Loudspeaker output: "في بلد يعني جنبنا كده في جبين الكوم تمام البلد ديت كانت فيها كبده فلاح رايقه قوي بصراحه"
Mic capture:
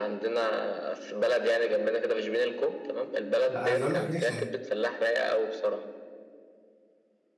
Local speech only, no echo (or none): لا عايز اقول لك نحشي